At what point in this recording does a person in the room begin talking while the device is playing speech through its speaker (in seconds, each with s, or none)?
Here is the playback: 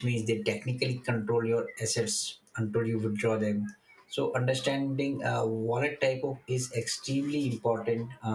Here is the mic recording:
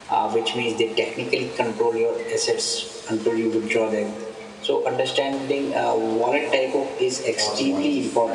7.3 s